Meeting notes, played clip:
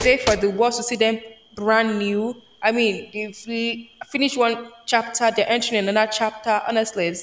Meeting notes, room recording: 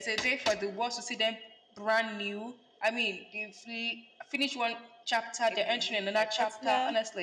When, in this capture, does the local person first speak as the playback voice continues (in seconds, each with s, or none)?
5.5 s